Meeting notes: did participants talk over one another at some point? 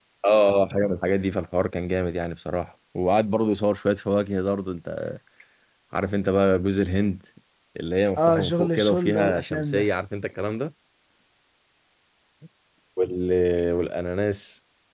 Yes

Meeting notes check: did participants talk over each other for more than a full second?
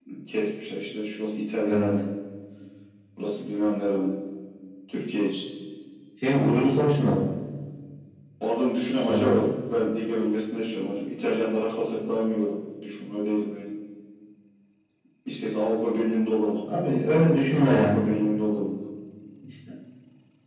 No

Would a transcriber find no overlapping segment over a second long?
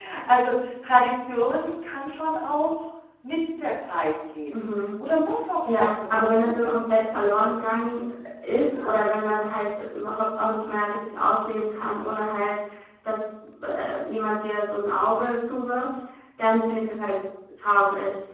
No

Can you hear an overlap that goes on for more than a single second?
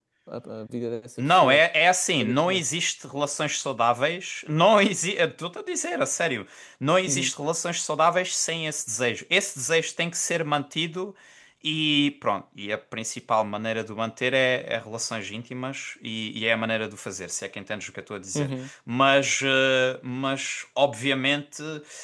No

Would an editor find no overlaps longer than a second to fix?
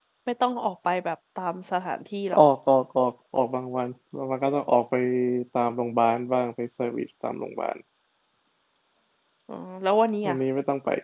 Yes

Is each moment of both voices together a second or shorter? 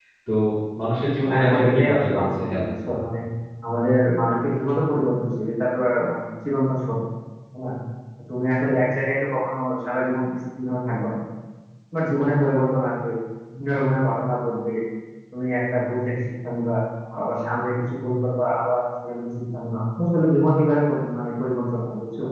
No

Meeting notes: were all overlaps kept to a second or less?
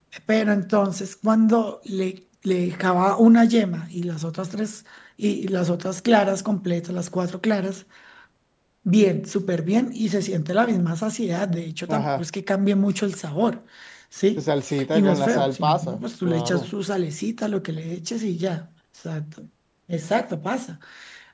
No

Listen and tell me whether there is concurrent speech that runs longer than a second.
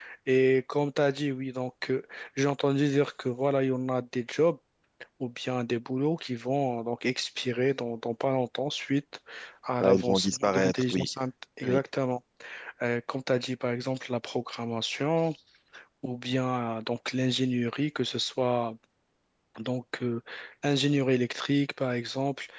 Yes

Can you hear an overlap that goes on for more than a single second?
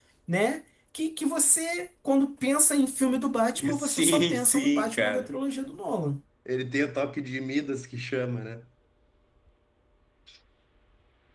Yes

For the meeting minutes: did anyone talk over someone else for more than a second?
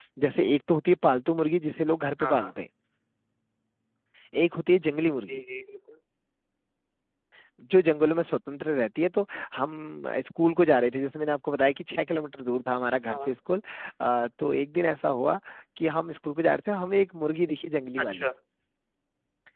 No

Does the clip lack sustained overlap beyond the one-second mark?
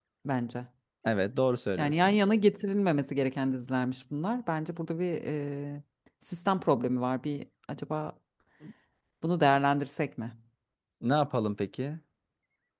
Yes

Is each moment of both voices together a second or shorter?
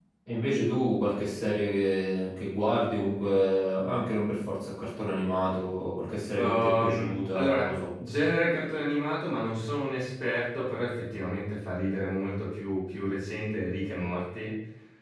No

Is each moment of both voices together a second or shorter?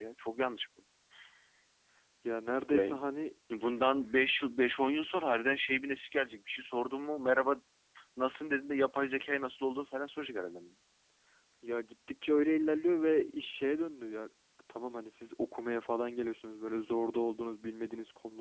Yes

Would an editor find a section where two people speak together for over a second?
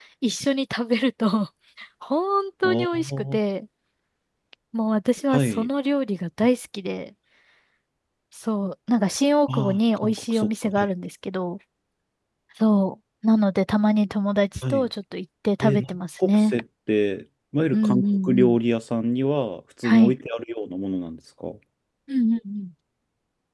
Yes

